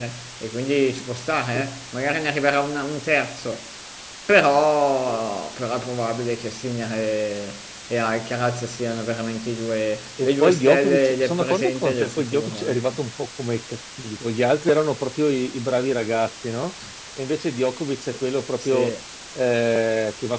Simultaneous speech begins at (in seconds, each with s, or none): 10.2 s